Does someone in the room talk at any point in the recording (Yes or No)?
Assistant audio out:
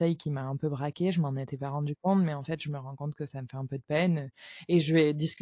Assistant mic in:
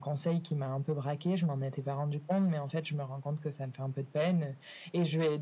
No